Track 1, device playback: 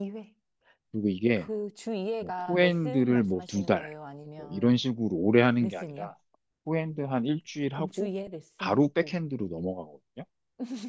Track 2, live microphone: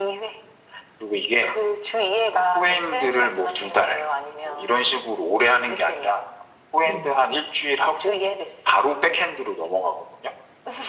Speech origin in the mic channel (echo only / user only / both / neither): both